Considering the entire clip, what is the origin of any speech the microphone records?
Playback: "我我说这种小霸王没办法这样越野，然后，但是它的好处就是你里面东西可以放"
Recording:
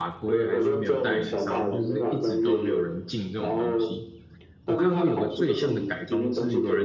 both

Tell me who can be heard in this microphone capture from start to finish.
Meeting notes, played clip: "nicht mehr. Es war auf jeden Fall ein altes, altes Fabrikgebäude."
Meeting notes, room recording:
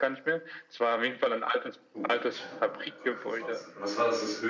both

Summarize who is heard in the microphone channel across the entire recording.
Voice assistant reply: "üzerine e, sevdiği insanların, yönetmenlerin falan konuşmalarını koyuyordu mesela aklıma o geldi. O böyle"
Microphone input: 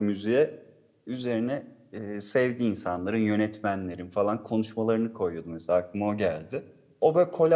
echo only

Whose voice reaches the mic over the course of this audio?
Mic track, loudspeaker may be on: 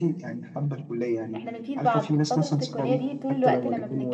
both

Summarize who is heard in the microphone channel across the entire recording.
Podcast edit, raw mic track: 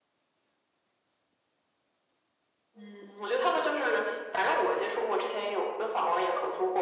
echo only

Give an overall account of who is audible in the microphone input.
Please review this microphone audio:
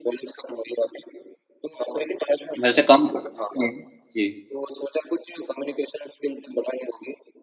both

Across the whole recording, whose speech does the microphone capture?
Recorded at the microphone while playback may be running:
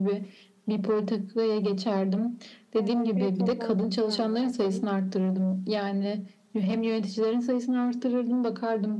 both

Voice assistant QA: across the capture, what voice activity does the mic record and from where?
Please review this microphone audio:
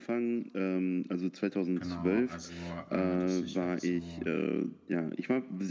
both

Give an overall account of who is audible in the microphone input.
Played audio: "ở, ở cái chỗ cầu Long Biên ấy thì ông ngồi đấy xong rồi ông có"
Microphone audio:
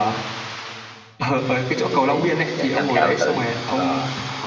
both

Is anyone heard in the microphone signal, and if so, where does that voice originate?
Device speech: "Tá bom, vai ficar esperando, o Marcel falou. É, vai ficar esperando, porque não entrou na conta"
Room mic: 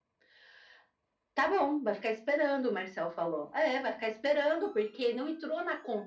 echo only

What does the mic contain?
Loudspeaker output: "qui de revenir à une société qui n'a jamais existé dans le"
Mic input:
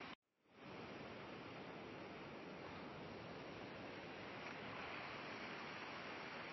neither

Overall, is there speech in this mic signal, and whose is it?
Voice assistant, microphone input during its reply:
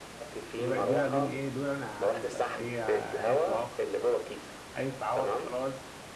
both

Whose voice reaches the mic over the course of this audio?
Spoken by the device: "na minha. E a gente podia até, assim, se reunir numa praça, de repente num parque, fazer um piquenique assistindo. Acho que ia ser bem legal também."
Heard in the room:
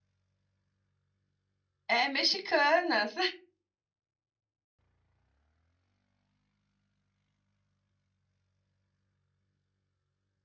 user only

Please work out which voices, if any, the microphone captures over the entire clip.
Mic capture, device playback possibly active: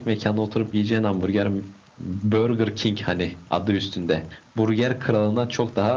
echo only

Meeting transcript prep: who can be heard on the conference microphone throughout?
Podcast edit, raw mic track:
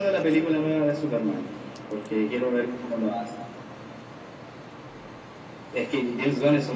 echo only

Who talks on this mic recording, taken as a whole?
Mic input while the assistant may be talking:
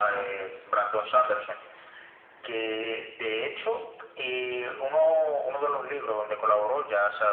echo only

